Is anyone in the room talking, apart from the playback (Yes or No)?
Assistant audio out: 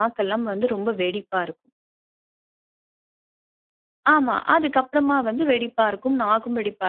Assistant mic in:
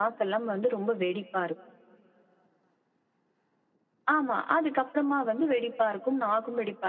No